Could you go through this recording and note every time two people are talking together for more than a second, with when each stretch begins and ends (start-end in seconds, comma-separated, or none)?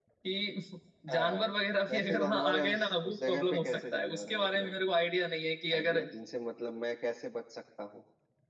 1.9-4.7